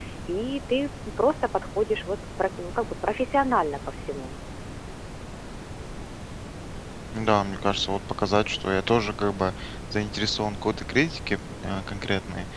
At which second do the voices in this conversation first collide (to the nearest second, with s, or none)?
none